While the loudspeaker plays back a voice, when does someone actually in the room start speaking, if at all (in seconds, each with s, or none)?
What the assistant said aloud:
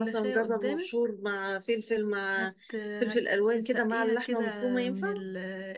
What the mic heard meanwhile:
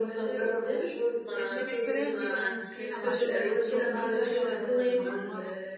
1.4 s